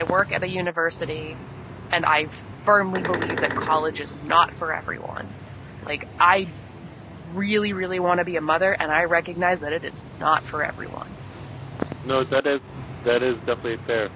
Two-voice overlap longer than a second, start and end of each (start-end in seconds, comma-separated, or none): none